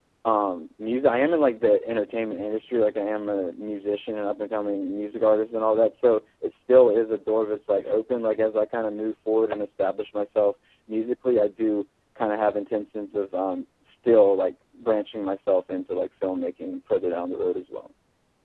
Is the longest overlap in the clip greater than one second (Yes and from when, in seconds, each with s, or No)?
No